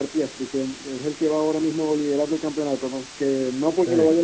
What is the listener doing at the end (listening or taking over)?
listening